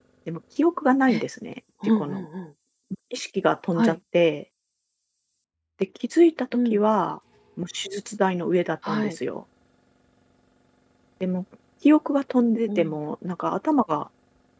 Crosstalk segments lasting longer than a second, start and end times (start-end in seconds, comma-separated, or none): none